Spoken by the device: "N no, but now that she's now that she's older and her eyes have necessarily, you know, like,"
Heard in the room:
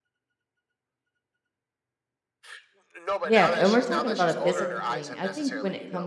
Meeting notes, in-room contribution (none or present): present